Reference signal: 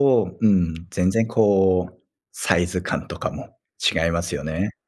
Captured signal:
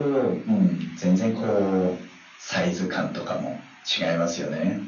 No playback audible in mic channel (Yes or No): No